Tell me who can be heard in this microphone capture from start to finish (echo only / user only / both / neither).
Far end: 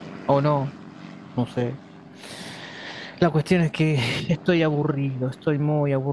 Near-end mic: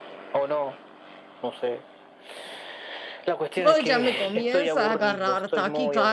both